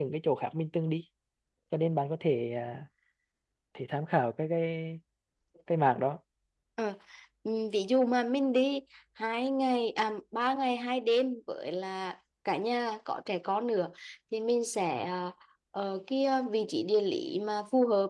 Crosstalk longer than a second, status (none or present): none